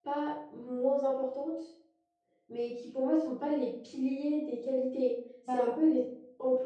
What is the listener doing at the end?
listening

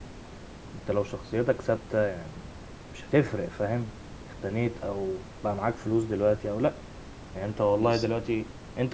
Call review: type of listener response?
listening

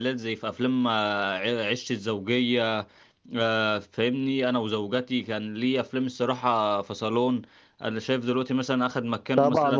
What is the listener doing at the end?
taking over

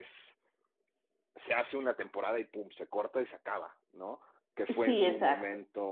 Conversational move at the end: listening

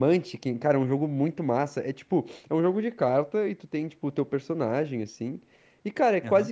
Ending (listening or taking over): listening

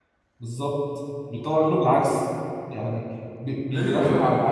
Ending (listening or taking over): taking over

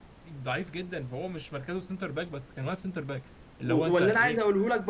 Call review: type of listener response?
taking over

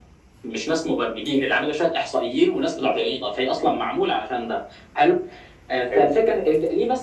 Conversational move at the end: listening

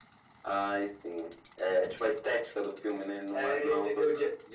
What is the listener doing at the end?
taking over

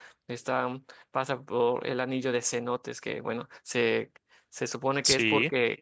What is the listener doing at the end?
listening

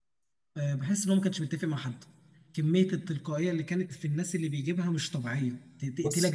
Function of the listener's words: taking over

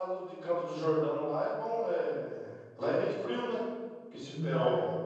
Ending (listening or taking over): listening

